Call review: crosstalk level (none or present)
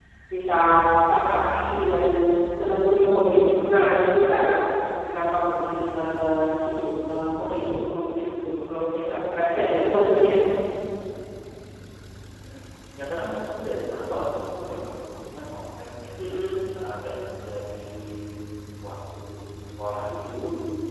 none